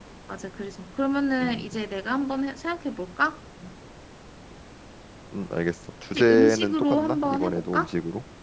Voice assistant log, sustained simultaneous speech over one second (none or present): present